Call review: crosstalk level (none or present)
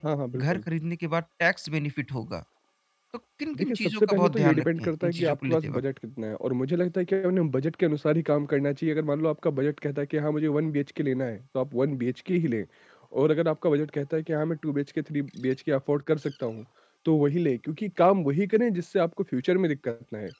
present